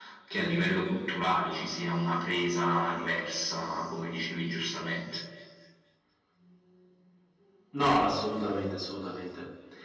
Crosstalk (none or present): none